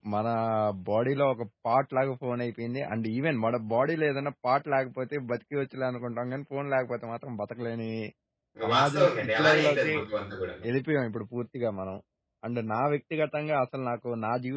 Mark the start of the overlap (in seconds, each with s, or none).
8.7 s